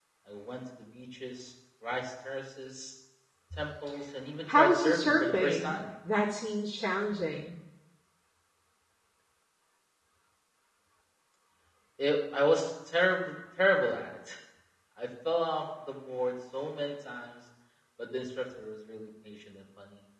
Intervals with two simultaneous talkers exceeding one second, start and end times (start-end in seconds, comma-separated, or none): 4.5-5.8